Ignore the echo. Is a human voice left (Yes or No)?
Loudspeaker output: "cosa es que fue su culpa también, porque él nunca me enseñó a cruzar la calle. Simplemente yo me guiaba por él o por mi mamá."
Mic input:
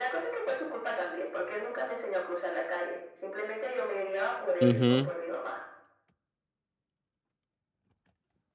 Yes